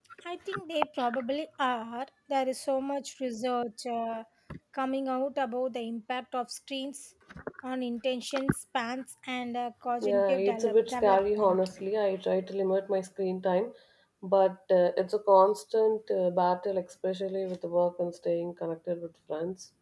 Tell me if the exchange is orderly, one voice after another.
No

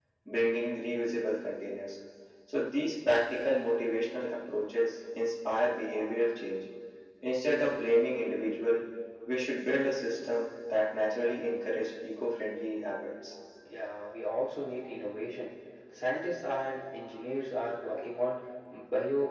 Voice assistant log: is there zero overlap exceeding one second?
Yes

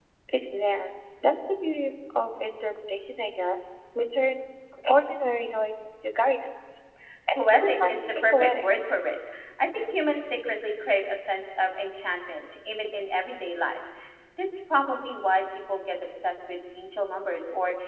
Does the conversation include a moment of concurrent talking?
Yes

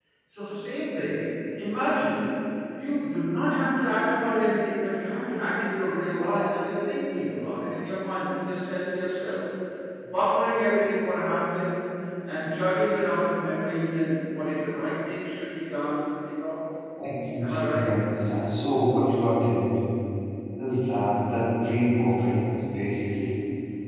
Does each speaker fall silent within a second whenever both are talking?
Yes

